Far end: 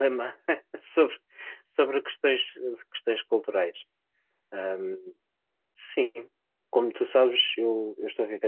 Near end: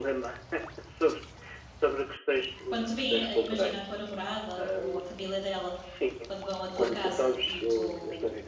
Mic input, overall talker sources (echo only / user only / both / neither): both